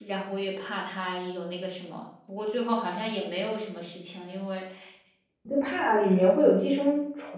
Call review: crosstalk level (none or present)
none